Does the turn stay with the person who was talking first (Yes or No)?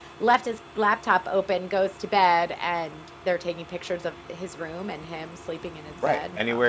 No